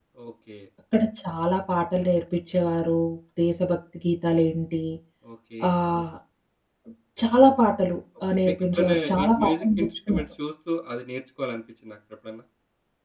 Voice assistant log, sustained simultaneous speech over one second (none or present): present